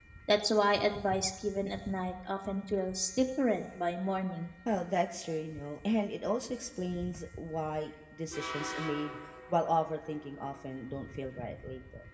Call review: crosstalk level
none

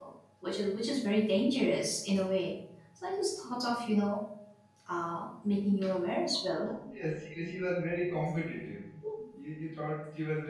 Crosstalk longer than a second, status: none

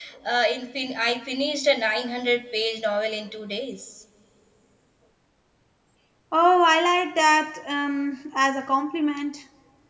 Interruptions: none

